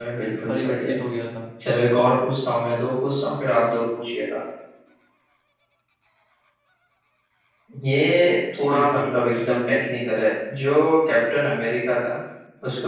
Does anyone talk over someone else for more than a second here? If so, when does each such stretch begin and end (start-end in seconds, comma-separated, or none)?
8.6-9.8